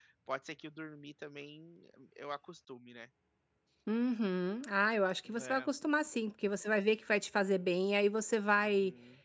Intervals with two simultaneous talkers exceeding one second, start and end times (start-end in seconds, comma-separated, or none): none